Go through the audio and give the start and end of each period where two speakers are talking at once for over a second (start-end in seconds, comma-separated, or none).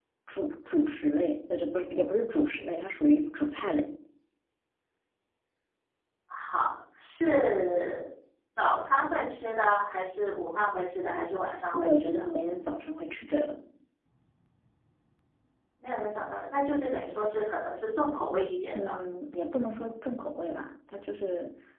none